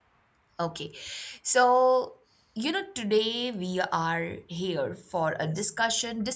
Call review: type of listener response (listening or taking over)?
listening